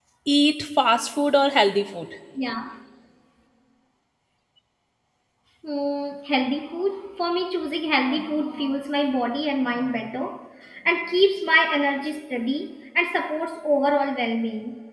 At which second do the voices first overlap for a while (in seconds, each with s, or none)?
none